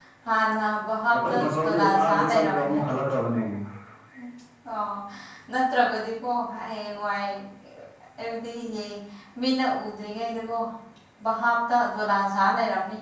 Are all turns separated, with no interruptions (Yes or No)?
No